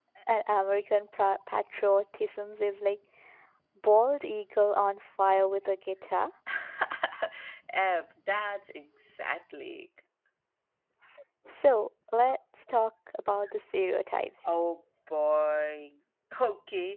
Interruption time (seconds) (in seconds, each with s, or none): none